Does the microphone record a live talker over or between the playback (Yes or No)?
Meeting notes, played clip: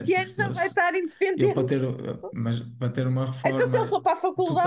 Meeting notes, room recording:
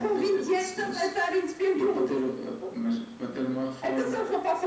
No